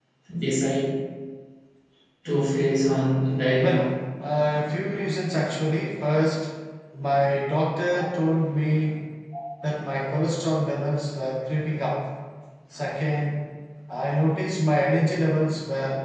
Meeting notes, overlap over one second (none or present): none